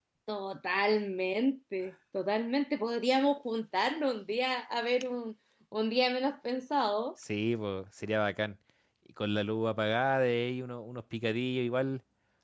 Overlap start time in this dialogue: none

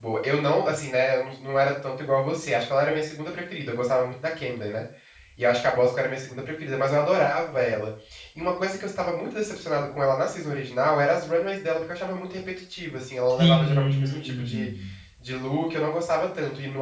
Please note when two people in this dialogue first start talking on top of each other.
13.3 s

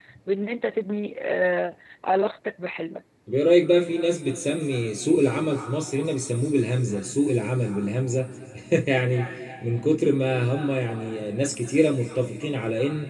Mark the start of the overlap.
none

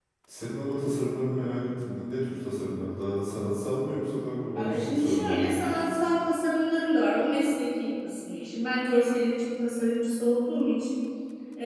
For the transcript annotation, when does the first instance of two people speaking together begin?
4.5 s

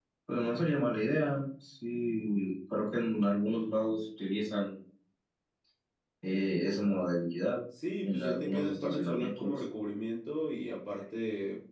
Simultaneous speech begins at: 8.0 s

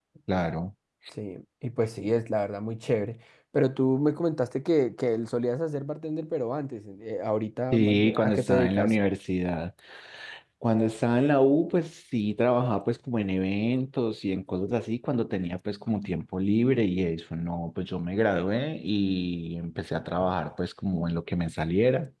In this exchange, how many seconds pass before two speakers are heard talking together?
7.7 s

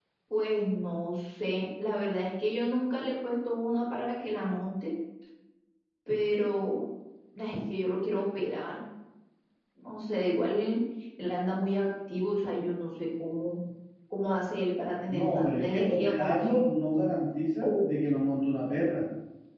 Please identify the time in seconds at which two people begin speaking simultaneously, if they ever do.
15.1 s

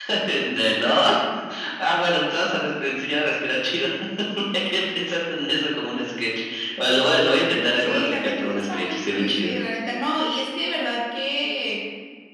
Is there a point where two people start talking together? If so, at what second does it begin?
7.8 s

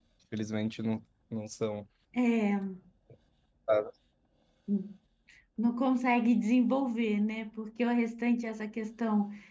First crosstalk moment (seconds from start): none

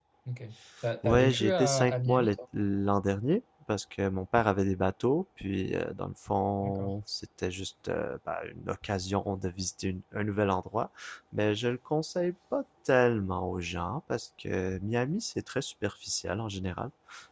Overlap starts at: 1.0 s

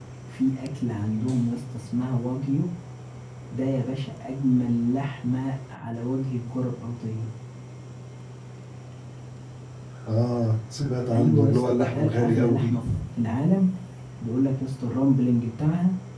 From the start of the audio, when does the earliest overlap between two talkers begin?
11.1 s

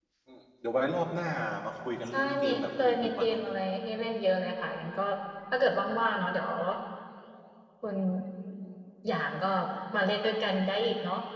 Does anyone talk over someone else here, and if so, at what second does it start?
2.1 s

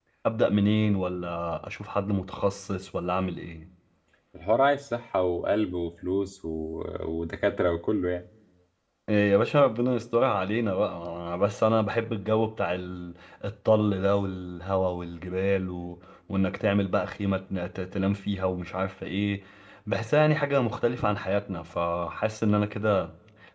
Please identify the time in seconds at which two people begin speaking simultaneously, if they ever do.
none

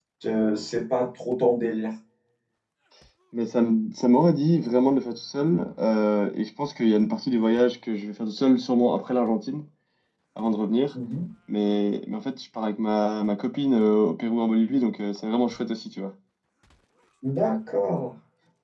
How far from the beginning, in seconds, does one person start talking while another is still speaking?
none

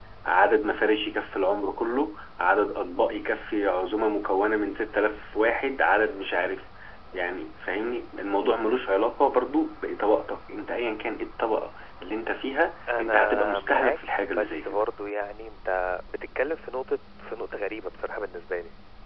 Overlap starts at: 12.9 s

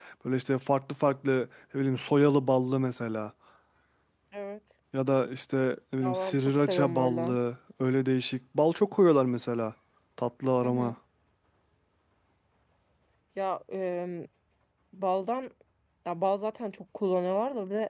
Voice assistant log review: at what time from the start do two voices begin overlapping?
6.0 s

